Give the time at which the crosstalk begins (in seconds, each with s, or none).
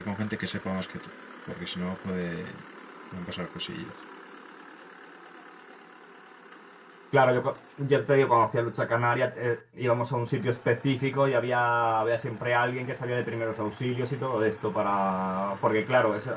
none